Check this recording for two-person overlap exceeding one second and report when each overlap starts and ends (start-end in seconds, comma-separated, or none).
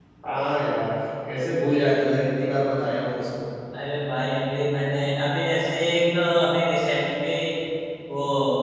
none